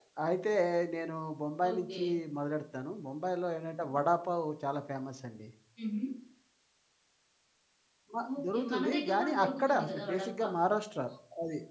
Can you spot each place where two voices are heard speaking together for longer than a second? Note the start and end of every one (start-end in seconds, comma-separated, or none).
8.4-10.5